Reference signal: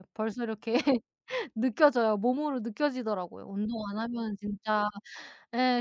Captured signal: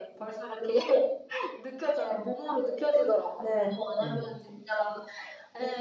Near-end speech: present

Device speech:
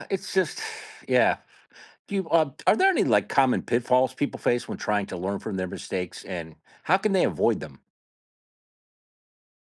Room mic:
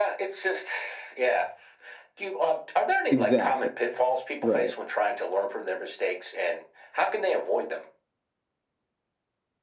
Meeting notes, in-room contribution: present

